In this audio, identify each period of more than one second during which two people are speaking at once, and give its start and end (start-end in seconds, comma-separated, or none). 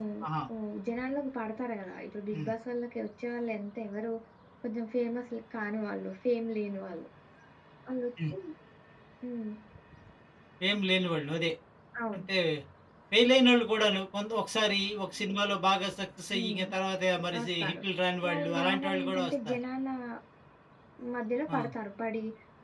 18.3-19.6